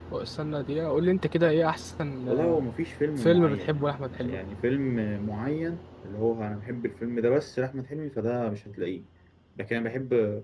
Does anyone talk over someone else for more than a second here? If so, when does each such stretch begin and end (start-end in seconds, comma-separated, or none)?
3.2-4.4